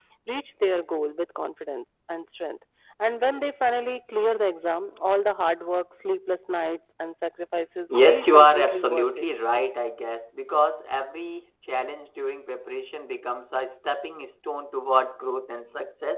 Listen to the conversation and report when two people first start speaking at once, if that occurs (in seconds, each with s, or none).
7.9 s